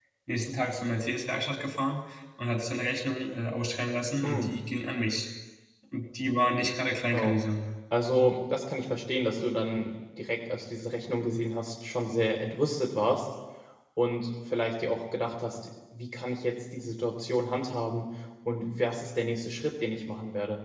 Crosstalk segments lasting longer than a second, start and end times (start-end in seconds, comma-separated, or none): none